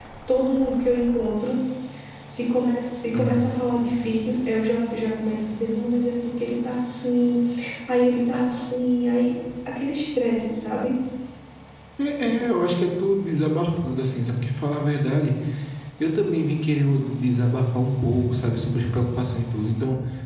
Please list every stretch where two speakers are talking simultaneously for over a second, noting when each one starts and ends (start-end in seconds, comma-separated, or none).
none